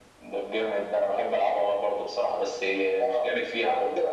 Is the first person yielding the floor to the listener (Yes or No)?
Yes